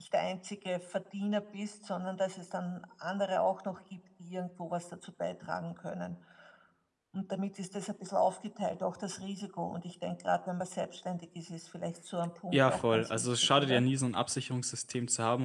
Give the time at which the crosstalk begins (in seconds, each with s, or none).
12.5 s